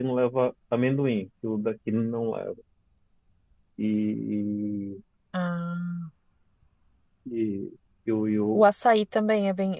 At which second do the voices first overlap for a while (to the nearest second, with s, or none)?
none